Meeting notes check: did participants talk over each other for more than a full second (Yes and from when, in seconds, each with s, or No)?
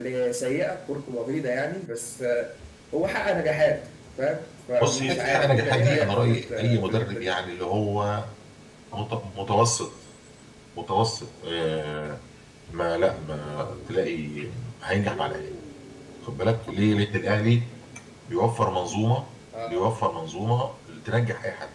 Yes, from 4.8 s